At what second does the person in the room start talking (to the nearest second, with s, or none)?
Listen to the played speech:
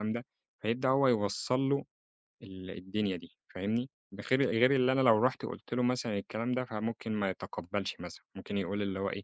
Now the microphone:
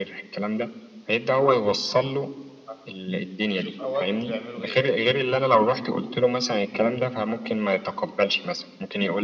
3 s